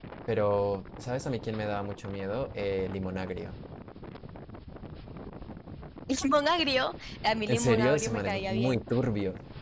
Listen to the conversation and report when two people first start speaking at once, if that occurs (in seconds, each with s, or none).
7.5 s